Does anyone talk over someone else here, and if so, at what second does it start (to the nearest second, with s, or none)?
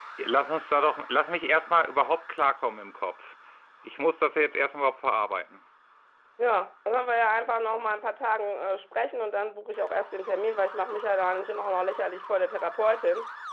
none